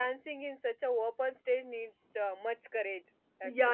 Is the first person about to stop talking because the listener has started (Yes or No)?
Yes